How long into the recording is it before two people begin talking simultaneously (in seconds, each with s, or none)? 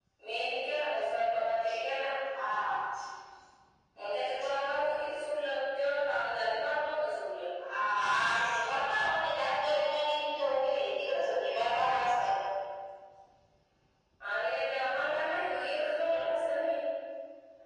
none